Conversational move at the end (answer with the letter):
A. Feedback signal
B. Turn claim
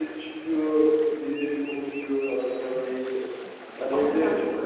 B